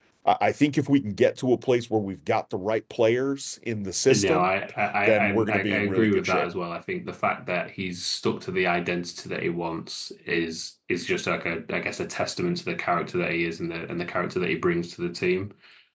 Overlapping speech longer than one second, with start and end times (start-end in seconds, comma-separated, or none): 5.1-6.5